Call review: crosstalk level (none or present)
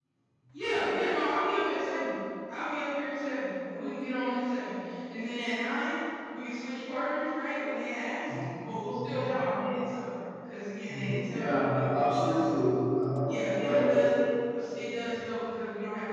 present